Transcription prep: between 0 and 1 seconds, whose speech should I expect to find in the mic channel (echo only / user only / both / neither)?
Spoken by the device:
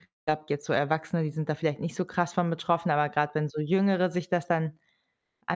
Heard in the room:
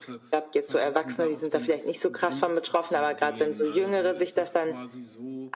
both